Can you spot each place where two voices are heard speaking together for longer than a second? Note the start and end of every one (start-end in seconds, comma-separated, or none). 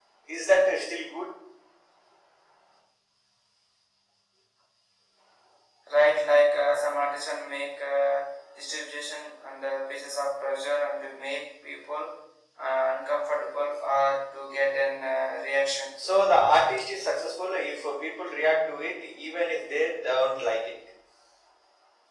none